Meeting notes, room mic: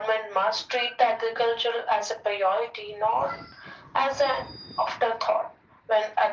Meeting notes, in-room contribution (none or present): none